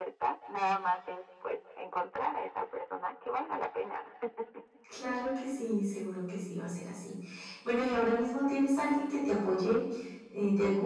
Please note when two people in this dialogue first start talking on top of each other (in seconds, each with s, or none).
none